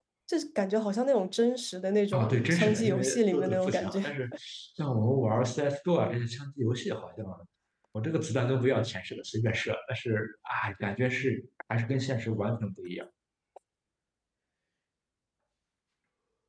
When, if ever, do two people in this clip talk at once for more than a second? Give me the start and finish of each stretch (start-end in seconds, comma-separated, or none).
2.1-4.0